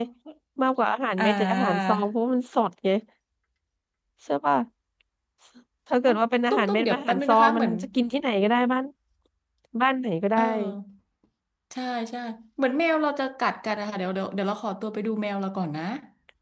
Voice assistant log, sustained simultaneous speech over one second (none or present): present